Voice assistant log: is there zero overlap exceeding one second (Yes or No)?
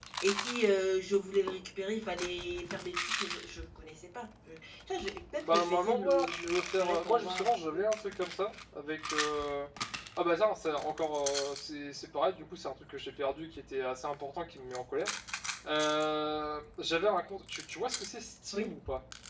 No